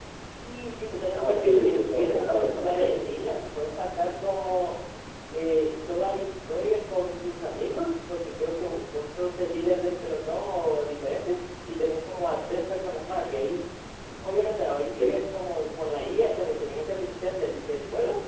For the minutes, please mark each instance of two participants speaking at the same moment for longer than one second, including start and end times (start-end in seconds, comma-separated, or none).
1.2-3.4